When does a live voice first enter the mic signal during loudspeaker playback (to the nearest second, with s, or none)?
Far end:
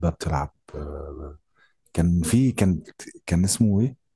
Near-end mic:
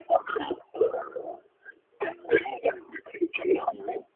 none